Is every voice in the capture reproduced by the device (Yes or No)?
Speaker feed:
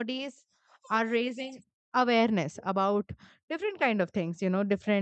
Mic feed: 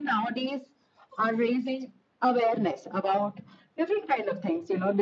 Yes